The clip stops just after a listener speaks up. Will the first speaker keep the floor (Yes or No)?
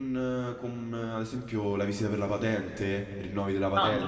Yes